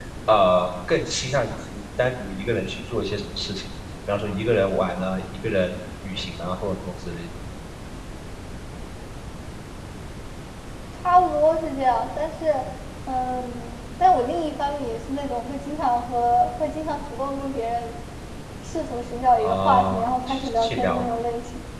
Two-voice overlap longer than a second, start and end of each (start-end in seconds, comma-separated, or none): 19.4-21.0